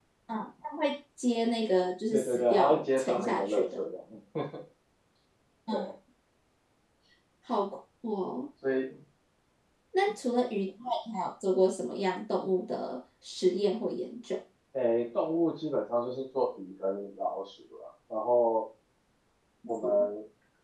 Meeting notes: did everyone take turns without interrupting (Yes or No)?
No